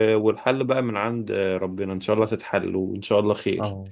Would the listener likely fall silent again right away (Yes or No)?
No